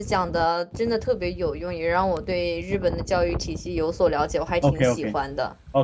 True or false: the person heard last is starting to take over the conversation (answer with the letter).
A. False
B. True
B